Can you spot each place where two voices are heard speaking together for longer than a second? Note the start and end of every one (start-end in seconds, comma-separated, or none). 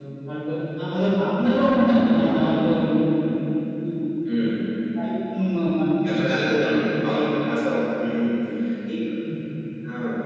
none